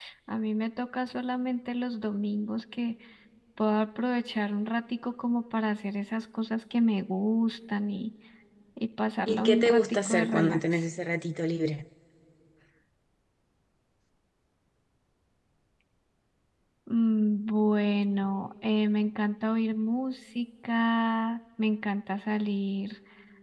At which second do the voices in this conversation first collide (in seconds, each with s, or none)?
9.3 s